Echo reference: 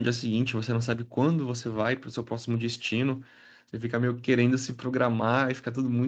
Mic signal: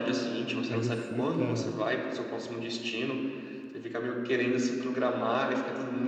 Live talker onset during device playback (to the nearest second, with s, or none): 1 s